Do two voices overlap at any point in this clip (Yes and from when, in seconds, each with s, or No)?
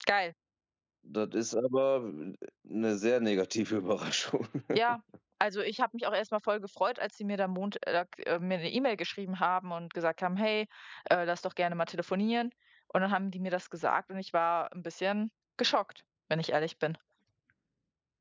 No